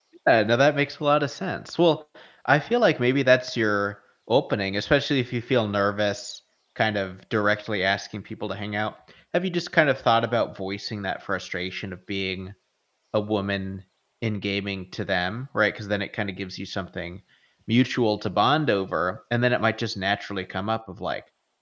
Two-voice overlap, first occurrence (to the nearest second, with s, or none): none